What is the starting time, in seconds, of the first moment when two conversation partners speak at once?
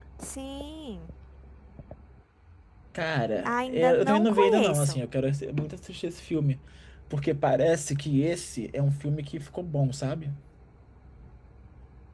3 s

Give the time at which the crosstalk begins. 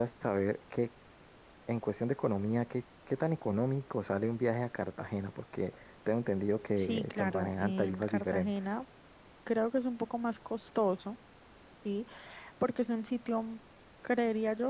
7 s

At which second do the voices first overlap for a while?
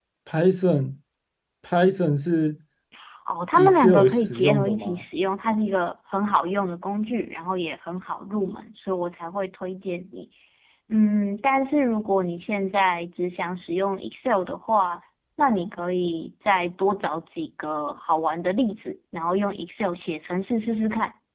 4 s

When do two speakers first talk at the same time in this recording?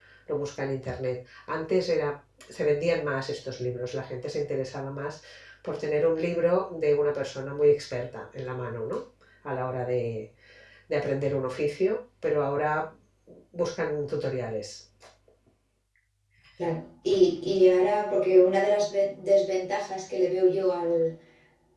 none

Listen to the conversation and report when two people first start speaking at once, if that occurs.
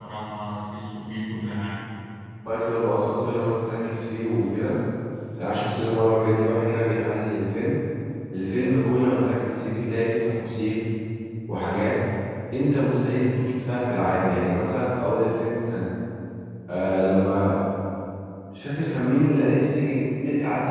none

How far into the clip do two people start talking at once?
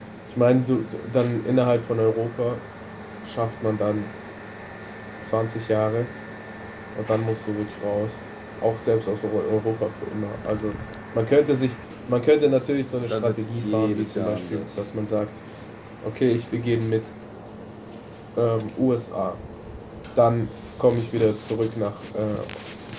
13 s

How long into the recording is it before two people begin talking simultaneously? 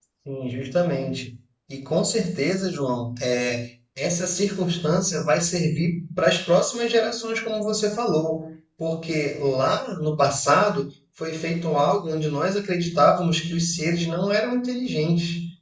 none

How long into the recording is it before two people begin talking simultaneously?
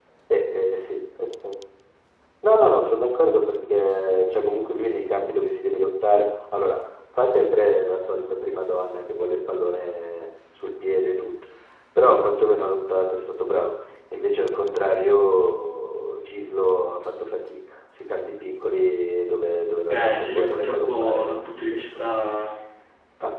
20 s

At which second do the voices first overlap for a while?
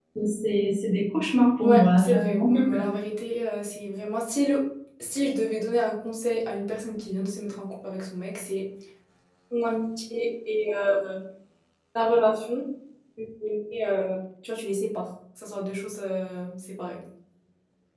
2 s

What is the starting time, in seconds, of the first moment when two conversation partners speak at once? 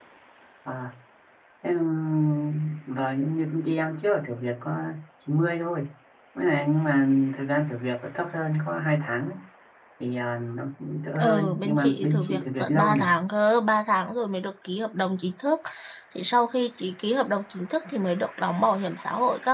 11 s

